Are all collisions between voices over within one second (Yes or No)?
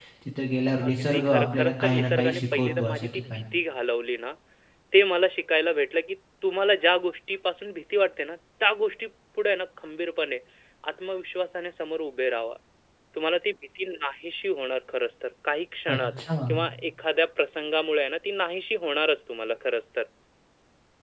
No